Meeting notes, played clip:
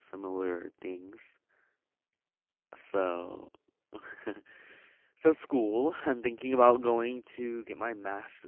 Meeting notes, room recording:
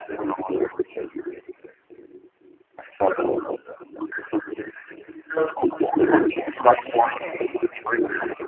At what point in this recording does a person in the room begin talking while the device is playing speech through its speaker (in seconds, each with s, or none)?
7.0 s